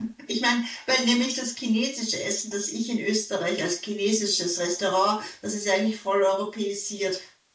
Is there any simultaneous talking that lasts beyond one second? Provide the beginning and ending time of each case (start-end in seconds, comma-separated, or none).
none